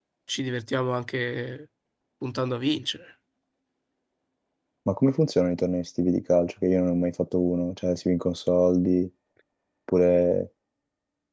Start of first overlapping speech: none

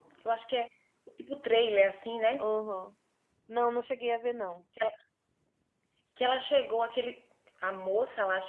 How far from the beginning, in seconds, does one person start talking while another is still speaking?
none

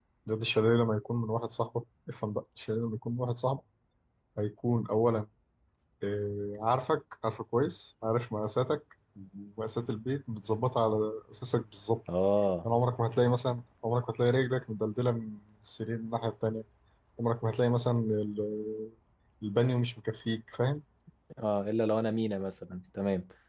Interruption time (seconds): none

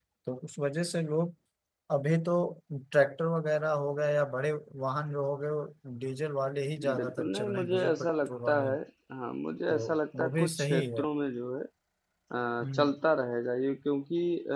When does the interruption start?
7.0 s

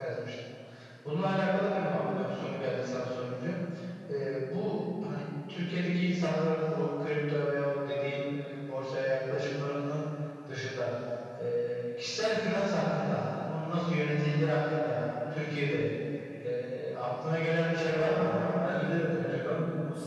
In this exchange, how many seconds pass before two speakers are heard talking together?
17.7 s

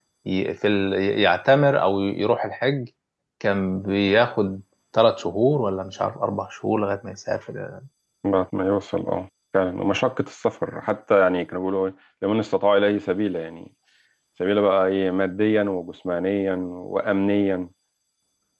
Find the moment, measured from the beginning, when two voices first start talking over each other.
none

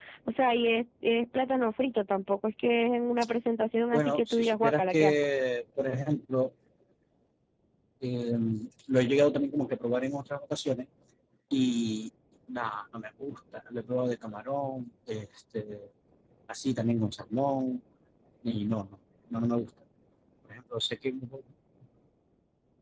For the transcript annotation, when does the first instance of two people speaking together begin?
3.9 s

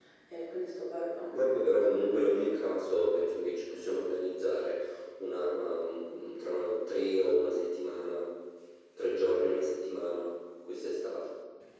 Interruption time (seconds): 1.3 s

